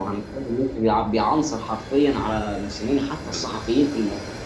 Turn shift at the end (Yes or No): No